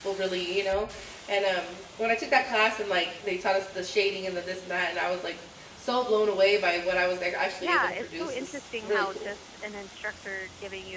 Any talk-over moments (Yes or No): Yes